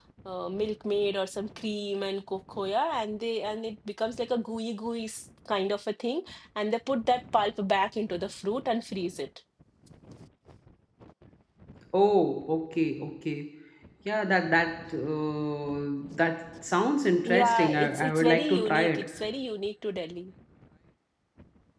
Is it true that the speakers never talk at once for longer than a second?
No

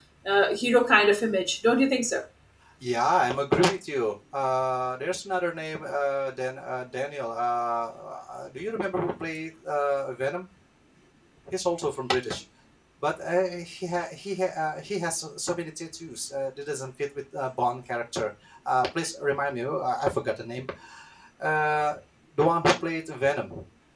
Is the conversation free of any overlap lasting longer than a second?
Yes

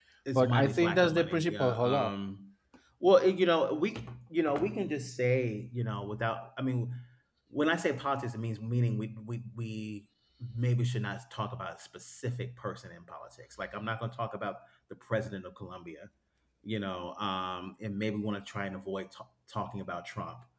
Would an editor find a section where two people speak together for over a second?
Yes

